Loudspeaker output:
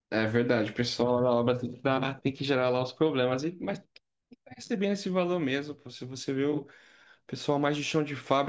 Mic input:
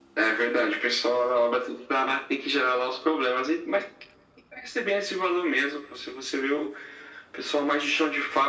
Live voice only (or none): none